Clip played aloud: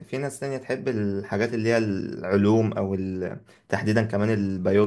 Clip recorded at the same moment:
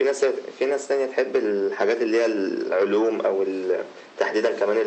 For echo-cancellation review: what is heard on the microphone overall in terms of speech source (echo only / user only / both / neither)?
echo only